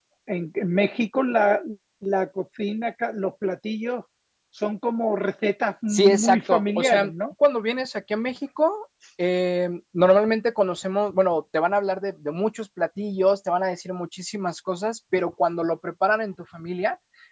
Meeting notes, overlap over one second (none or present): present